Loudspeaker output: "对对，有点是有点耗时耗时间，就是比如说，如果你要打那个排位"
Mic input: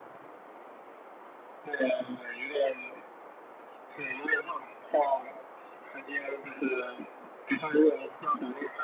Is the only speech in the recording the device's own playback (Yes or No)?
Yes